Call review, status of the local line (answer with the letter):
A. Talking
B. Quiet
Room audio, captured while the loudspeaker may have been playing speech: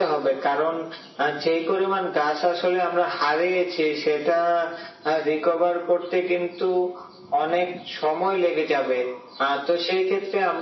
B